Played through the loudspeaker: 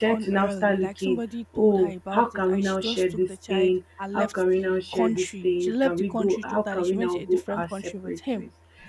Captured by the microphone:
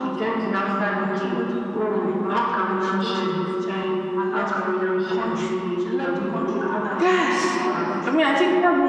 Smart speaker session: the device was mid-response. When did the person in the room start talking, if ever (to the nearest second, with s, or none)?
7 s